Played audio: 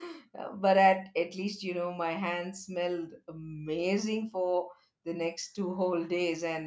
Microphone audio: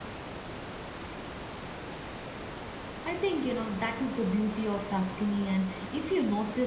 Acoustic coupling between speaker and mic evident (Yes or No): No